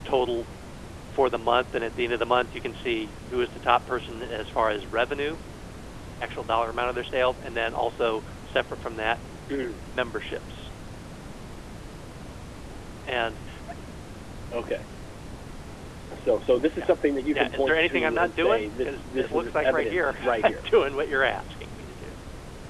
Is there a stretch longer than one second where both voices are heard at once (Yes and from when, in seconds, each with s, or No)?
Yes, from 17.3 s